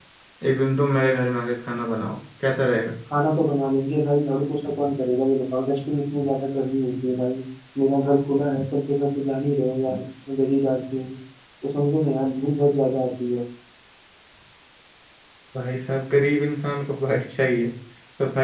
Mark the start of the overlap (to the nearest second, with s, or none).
none